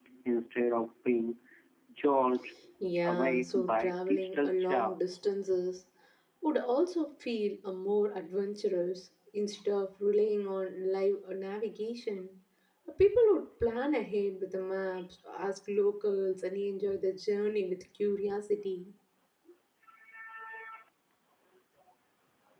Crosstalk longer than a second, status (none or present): present